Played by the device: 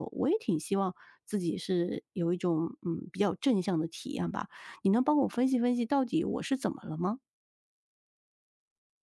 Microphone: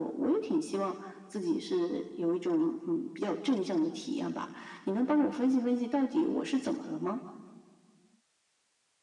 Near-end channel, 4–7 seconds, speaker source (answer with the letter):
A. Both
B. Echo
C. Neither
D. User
B